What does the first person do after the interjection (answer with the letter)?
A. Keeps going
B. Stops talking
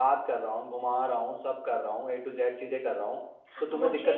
B